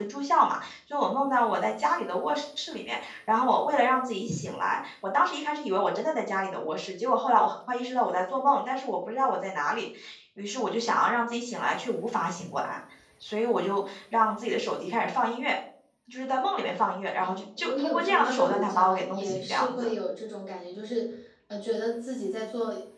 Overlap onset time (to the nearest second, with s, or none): 17 s